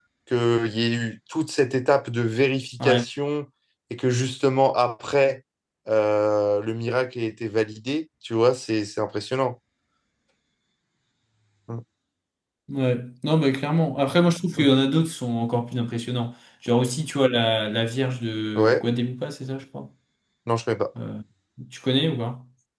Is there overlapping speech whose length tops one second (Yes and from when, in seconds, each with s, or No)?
No